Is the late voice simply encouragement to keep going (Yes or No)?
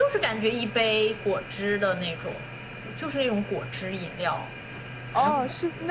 No